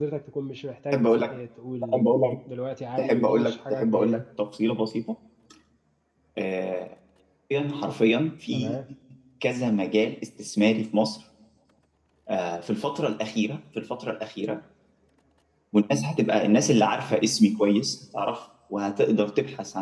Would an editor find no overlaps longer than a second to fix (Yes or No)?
No